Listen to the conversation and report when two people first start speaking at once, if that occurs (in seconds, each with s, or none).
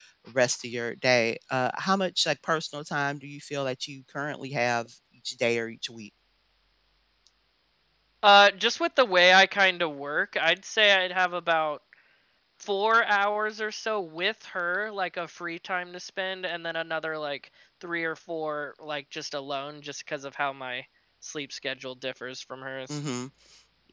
none